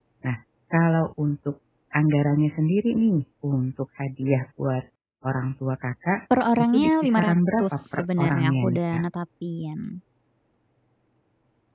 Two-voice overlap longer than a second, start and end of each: 6.7-9.0

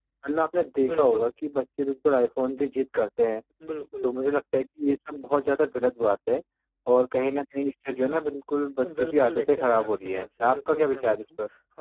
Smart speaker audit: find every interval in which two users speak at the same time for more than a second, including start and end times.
9.0-11.2

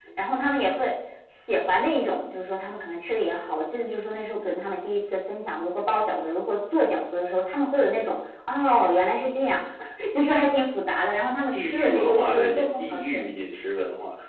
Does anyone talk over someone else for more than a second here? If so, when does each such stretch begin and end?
11.5-13.2

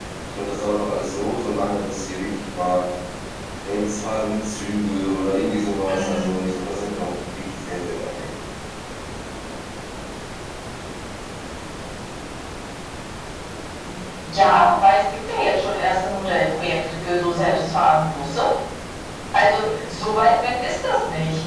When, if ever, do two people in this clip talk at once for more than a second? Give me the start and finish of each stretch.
none

